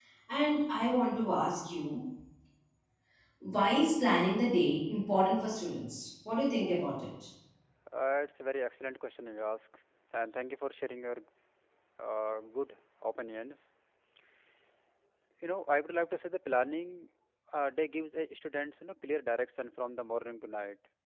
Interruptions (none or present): none